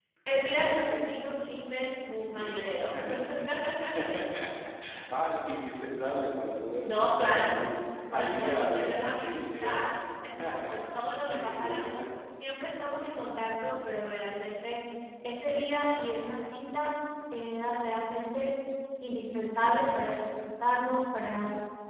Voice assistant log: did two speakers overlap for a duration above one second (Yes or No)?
Yes